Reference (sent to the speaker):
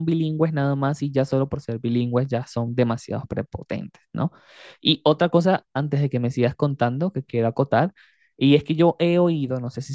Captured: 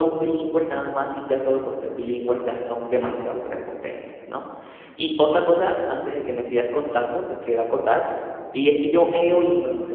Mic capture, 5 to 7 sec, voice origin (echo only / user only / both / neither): echo only